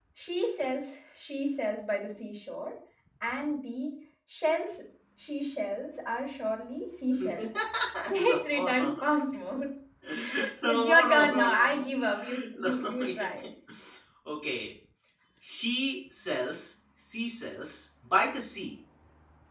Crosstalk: present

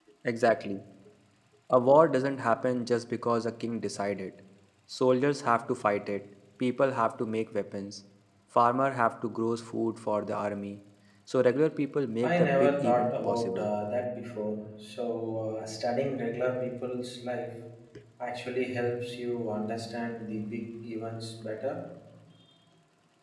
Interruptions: present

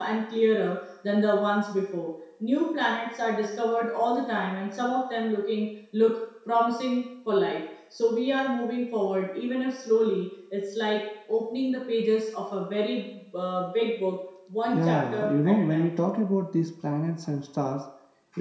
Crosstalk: present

